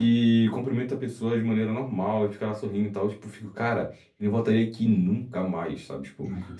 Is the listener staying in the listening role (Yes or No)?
Yes